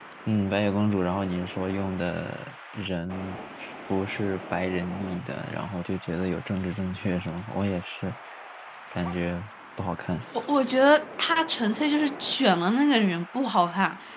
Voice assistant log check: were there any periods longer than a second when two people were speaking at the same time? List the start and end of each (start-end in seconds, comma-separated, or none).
none